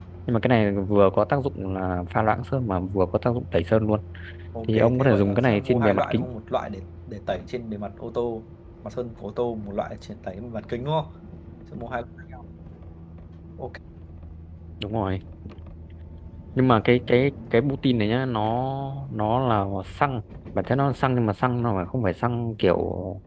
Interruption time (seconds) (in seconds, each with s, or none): 4.6 s